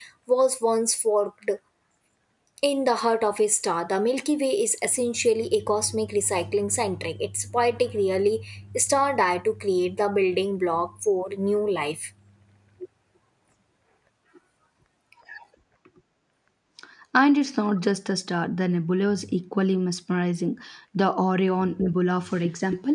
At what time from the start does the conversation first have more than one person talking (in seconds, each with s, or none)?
none